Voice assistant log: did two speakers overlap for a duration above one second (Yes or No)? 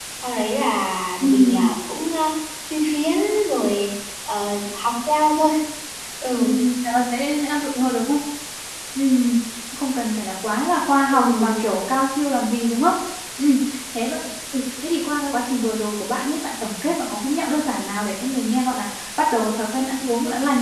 No